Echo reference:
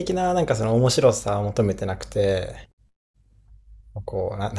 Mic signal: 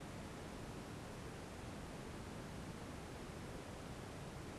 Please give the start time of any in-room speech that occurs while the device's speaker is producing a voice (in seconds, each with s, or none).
none